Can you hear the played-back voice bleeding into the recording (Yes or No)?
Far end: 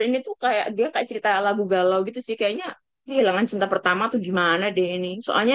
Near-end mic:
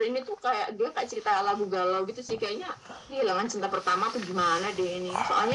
Yes